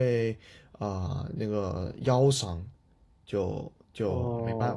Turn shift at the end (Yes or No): No